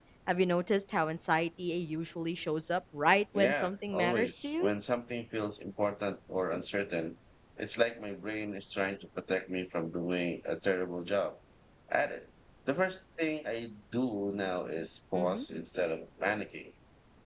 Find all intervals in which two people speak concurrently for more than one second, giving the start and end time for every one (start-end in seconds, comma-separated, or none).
3.4-4.7